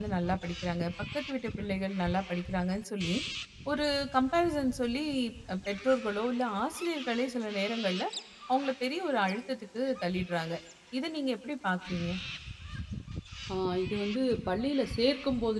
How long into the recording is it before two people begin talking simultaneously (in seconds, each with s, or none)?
none